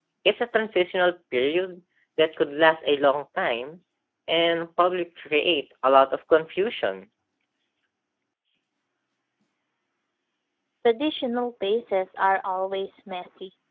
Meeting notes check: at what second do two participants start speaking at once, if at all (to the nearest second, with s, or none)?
none